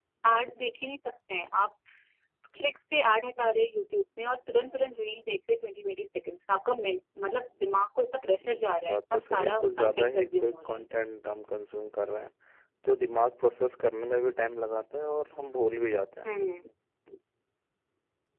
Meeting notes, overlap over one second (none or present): present